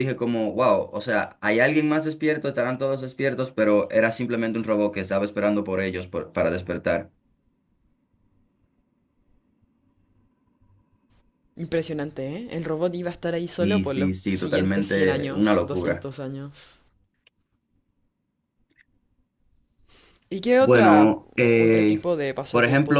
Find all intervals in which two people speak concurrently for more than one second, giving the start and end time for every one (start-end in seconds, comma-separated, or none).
13.6-16.0